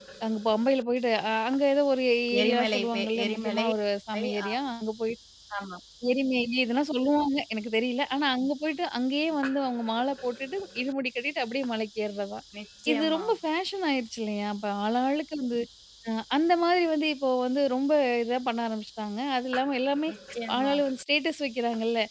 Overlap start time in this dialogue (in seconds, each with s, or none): 2.4 s